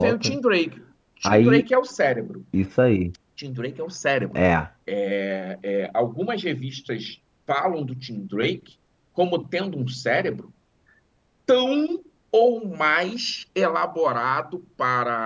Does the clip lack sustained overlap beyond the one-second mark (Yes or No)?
Yes